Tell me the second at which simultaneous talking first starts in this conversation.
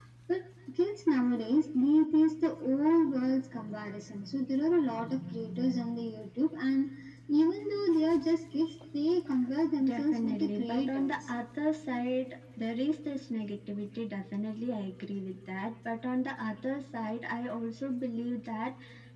9.8 s

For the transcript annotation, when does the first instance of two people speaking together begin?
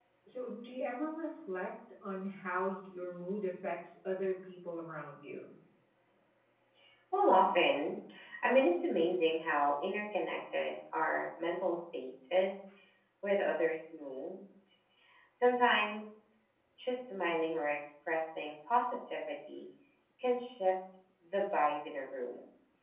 none

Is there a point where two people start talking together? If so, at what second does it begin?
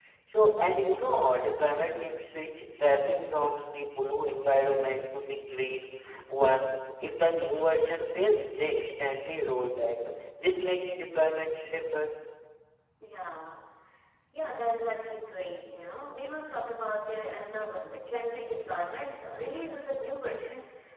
none

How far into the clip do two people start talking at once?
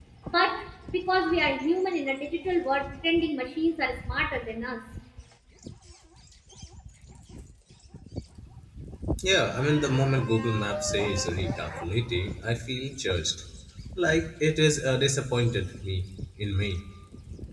none

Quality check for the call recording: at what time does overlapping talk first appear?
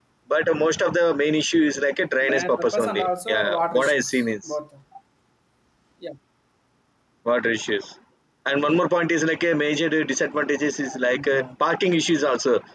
2.2 s

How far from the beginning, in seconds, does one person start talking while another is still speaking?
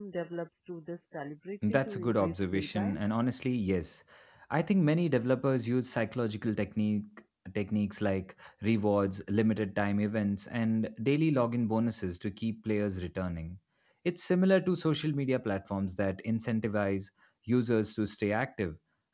1.6 s

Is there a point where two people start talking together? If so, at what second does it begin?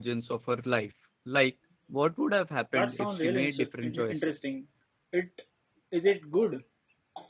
2.7 s

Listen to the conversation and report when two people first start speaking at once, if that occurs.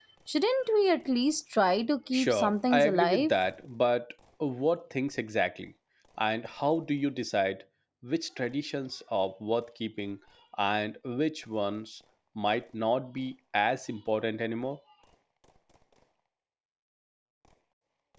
2.1 s

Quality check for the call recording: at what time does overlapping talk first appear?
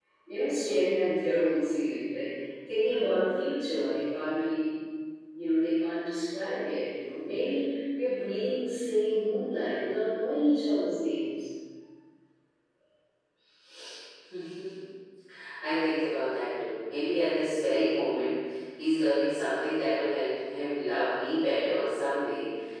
none

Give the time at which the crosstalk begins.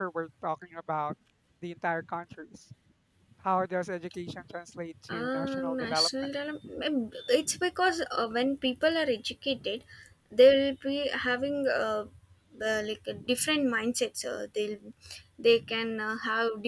5.1 s

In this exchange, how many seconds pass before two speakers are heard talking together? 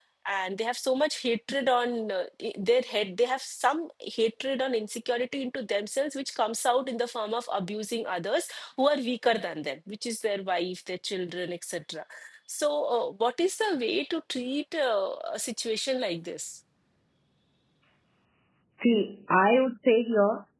none

